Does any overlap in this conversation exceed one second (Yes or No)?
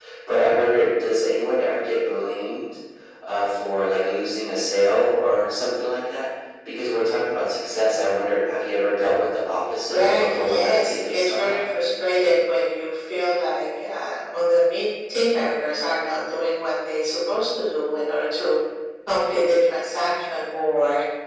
Yes